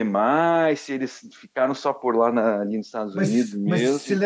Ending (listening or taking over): taking over